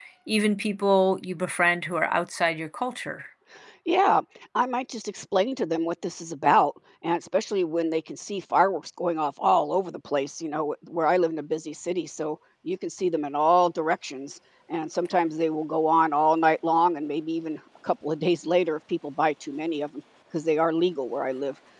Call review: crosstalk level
none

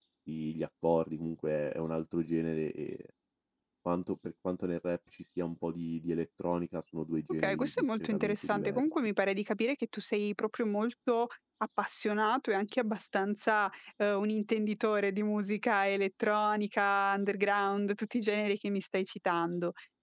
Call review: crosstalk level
present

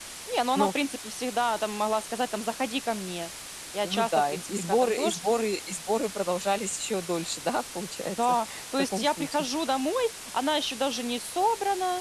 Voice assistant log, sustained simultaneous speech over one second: present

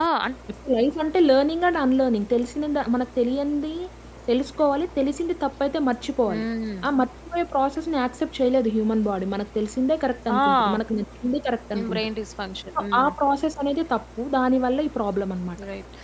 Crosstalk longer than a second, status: none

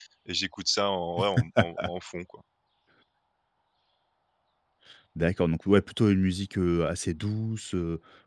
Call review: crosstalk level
none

